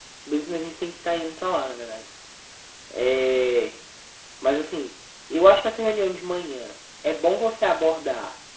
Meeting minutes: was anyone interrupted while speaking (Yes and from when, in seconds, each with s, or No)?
No